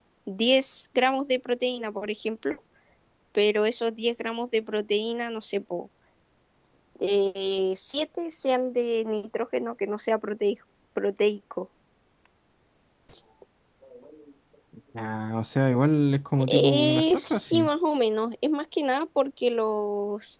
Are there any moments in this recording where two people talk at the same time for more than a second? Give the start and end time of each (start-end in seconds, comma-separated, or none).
16.4-17.7